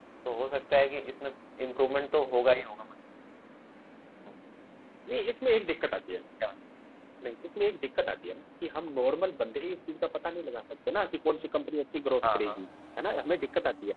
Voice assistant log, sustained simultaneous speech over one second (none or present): none